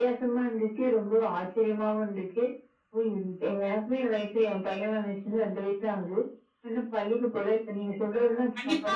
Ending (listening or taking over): taking over